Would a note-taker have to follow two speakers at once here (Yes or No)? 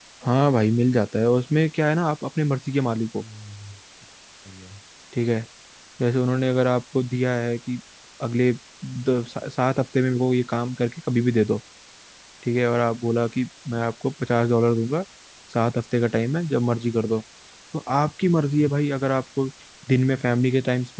No